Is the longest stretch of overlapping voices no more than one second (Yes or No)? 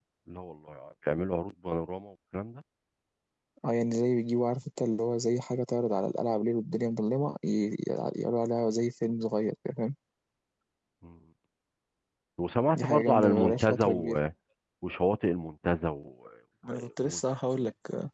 No